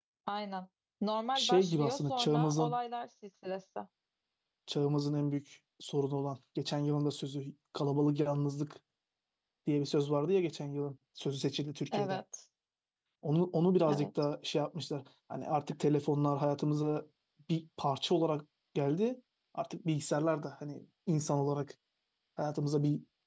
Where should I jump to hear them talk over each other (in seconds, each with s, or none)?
1.4 s